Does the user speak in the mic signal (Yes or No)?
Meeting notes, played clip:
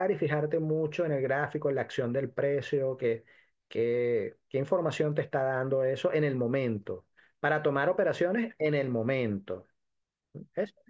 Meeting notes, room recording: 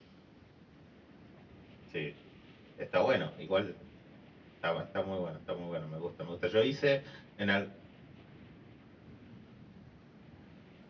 Yes